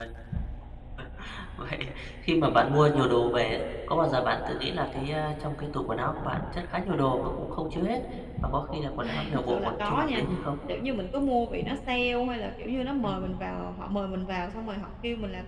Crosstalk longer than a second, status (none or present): present